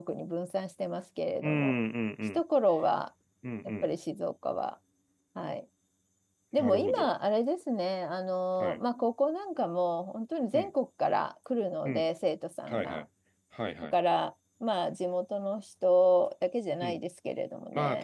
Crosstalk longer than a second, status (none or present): none